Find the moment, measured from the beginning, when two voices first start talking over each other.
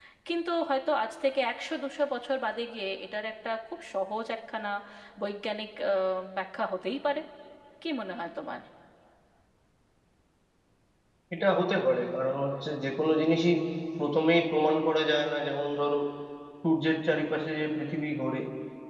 none

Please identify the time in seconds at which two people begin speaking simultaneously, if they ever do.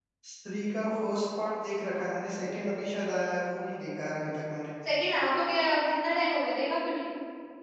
none

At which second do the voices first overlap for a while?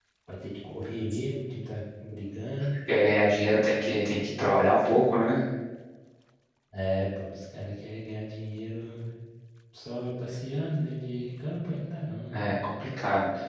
none

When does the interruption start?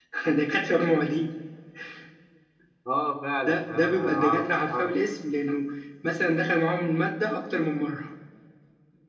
3 s

